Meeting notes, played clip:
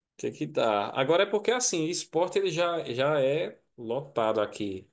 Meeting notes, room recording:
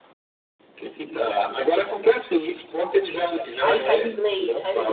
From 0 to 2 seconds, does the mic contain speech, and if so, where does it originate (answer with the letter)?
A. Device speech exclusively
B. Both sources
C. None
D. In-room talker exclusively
A